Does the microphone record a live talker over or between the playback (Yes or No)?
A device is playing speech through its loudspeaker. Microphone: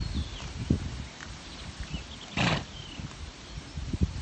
No